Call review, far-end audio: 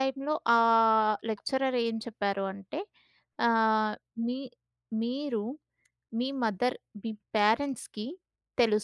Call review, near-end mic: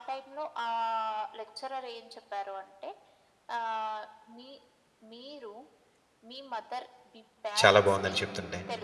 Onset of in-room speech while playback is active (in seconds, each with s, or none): 7.6 s